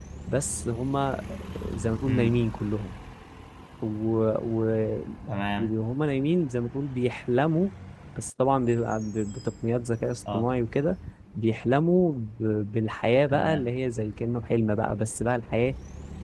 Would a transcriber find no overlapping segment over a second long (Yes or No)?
Yes